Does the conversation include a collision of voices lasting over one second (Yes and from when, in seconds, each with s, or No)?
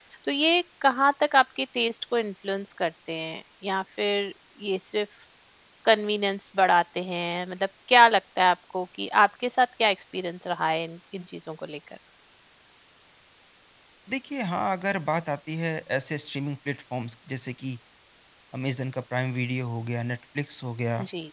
No